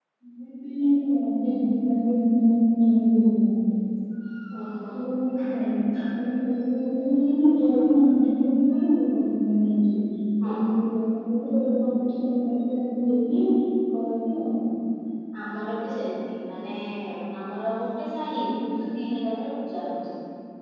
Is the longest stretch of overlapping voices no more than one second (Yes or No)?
Yes